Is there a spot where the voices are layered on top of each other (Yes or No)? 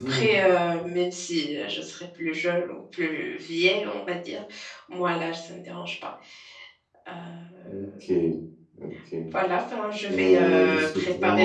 Yes